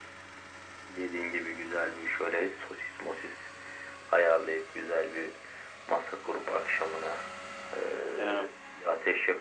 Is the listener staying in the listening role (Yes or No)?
Yes